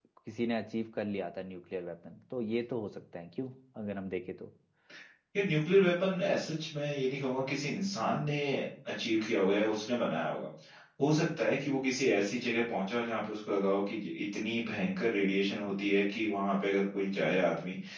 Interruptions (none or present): none